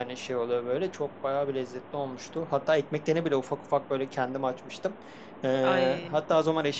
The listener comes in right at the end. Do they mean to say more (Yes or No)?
No